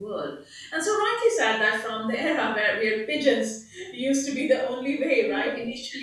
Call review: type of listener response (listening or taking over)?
listening